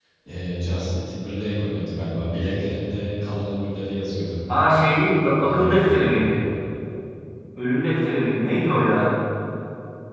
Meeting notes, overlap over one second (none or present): none